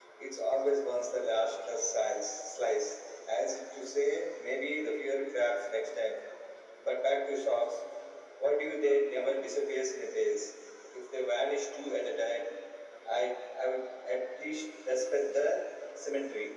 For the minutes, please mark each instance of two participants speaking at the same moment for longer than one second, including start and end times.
none

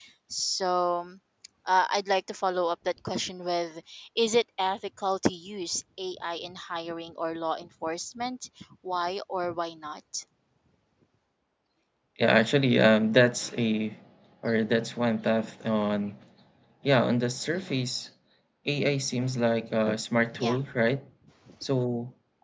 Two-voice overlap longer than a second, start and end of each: none

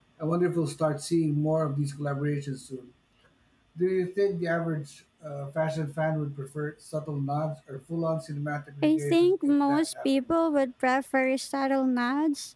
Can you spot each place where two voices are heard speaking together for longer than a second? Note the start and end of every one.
8.8-10.1

